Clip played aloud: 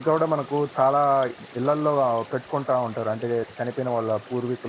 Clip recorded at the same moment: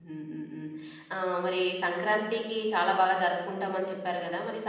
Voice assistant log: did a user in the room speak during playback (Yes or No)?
Yes